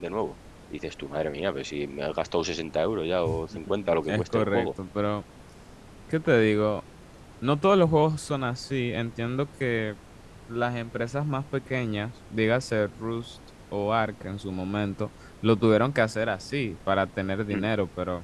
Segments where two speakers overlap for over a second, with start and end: 3.3-4.7

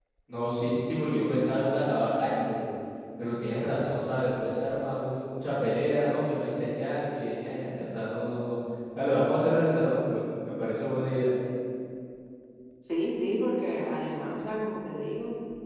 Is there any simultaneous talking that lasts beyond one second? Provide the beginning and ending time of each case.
none

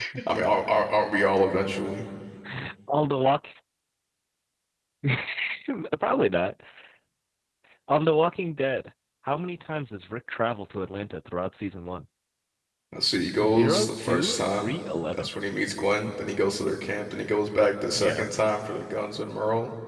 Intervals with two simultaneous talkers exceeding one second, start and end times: 13.4-14.7

